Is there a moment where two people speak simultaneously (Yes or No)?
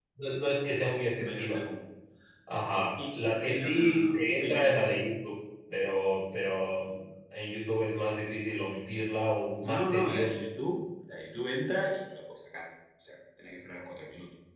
Yes